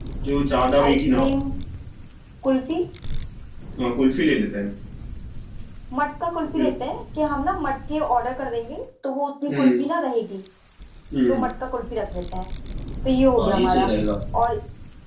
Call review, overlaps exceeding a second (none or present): none